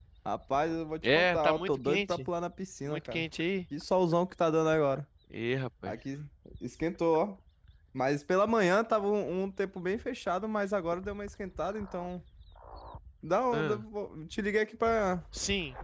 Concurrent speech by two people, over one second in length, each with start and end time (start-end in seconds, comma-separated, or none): 1.0-2.3